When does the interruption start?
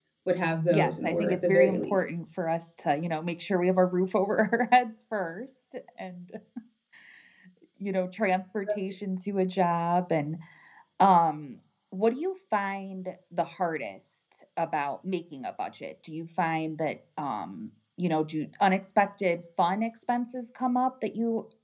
0.7 s

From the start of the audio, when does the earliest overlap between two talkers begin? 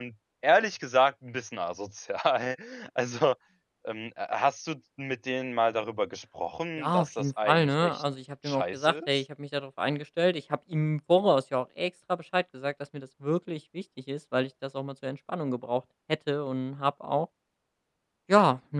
6.8 s

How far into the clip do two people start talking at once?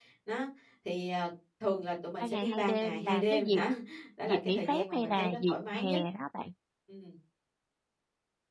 2.2 s

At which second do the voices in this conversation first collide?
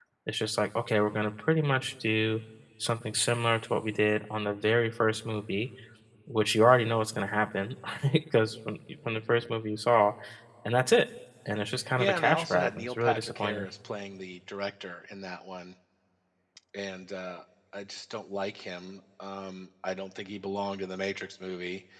12.0 s

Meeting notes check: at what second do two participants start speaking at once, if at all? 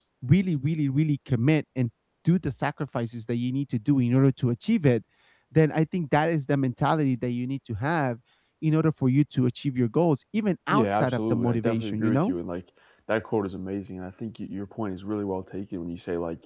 10.7 s

